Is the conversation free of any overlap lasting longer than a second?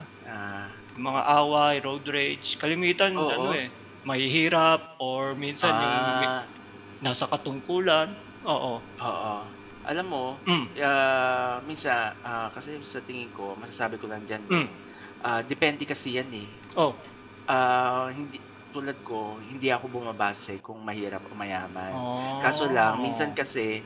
No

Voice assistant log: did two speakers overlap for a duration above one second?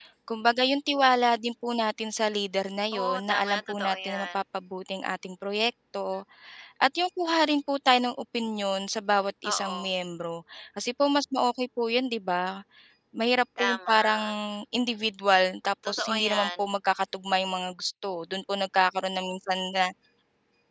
Yes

